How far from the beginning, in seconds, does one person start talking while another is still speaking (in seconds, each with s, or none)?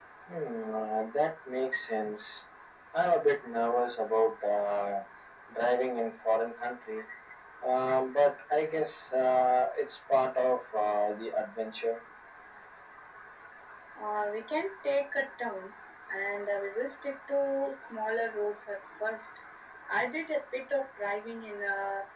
none